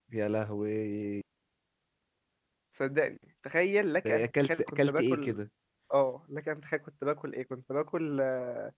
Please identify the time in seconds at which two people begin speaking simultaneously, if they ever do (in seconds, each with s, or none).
4.0 s